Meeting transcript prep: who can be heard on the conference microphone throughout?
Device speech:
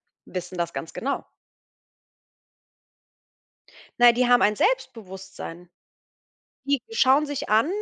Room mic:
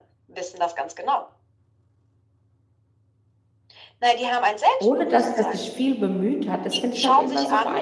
both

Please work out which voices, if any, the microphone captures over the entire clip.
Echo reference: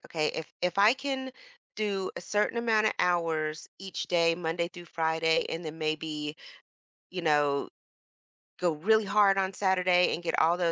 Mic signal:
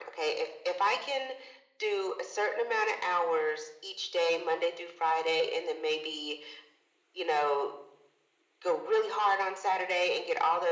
echo only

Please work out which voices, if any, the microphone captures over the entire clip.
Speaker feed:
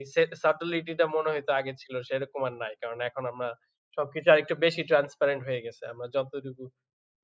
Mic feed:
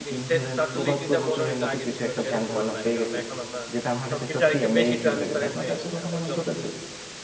both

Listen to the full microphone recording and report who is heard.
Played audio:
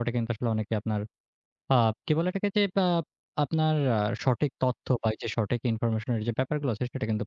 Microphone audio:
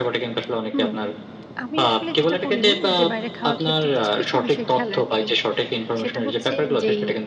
both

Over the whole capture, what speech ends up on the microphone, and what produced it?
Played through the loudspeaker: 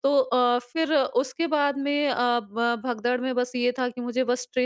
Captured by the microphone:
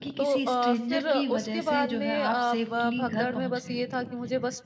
both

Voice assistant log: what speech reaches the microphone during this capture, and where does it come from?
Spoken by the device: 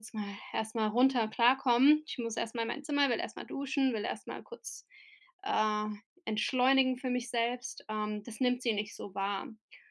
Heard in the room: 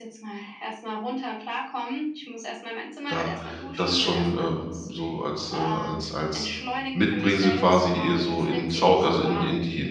both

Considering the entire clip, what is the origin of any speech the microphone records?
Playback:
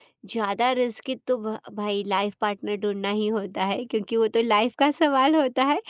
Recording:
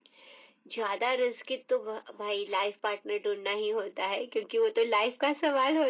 echo only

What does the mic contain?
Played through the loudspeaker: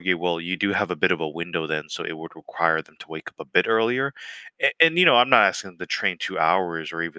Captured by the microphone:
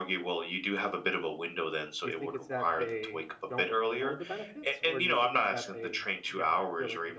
both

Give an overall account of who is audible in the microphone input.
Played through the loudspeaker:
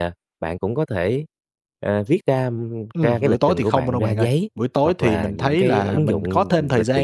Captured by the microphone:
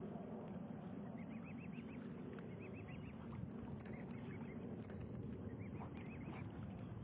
neither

